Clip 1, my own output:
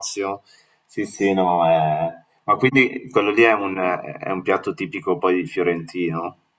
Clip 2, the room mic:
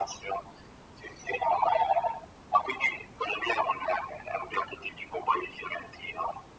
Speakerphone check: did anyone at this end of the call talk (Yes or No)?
No